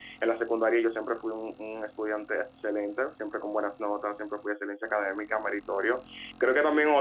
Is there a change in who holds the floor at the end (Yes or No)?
No